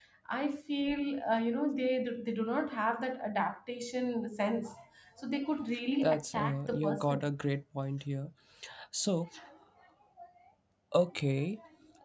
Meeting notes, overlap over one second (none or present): present